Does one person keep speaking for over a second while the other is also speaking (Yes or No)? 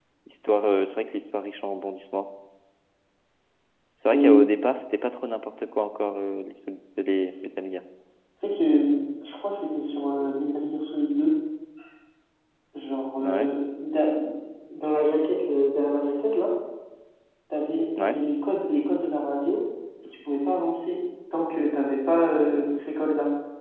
No